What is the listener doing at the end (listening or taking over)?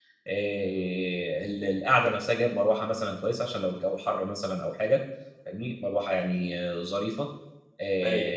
listening